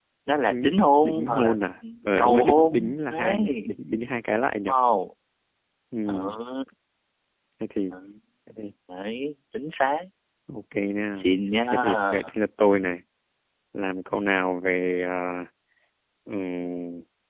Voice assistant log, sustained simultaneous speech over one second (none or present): present